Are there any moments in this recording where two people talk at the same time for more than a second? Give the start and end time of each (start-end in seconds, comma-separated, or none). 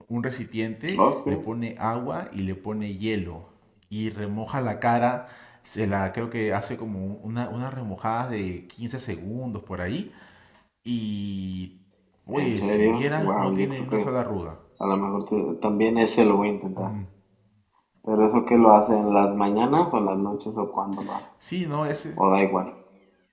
12.3-14.1